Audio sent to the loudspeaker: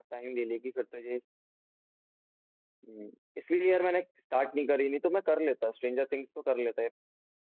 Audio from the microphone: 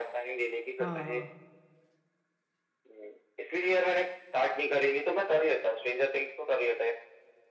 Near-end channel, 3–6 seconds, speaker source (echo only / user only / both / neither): echo only